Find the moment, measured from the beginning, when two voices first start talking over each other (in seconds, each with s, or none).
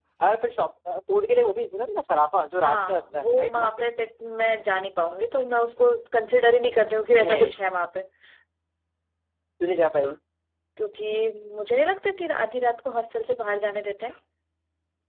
2.6 s